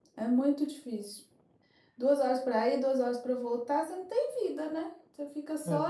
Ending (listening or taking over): listening